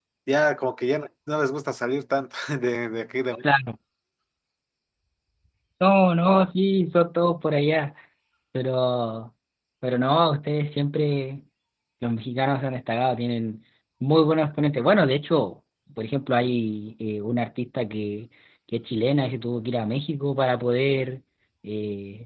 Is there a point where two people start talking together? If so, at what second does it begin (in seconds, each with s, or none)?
none